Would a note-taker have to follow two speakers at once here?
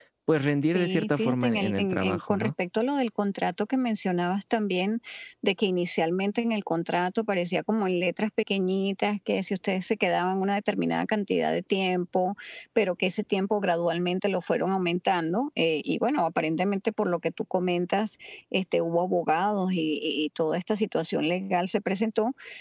Yes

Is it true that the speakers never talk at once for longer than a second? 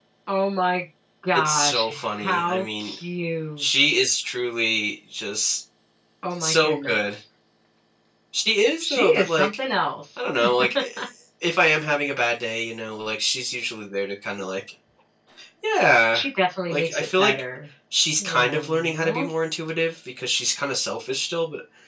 No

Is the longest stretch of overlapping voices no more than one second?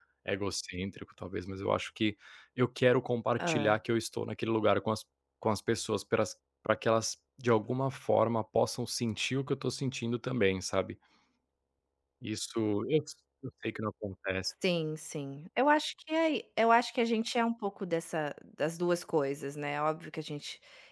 Yes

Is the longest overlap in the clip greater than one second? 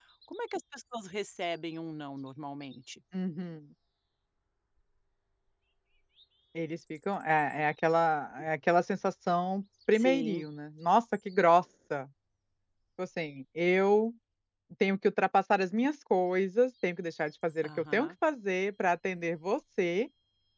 No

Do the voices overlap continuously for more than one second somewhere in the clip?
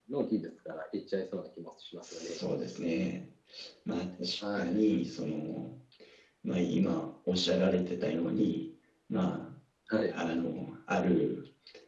No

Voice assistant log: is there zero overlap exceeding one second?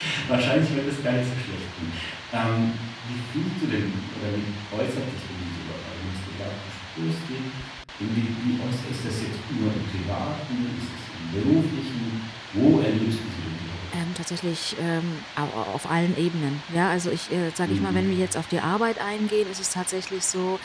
Yes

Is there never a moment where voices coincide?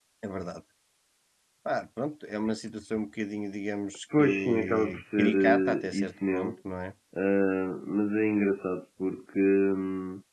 No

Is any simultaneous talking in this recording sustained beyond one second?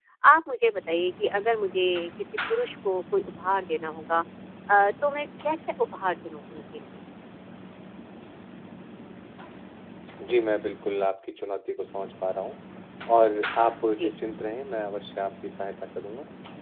No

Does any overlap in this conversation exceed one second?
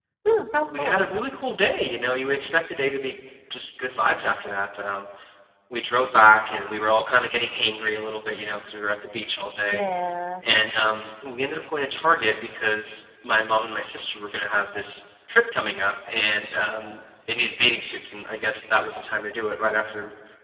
No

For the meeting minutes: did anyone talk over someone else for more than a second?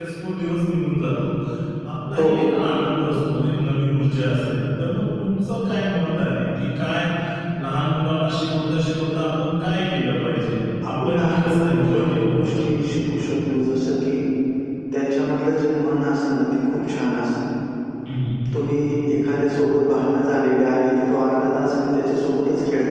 Yes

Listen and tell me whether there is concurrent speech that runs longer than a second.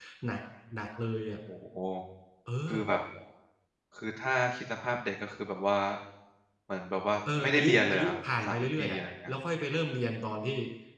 Yes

